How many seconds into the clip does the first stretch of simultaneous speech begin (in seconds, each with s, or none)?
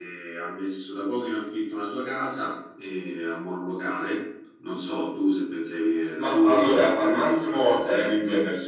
6.2 s